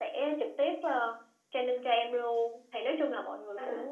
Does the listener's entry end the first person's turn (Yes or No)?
No